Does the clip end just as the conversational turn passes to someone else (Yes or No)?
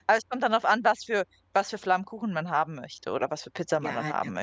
Yes